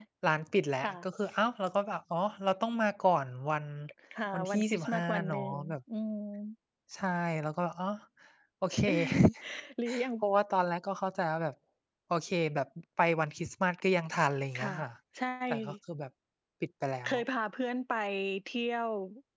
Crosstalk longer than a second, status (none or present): present